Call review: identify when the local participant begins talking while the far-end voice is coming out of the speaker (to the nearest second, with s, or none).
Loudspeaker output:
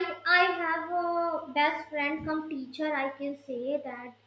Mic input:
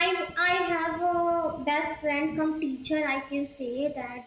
none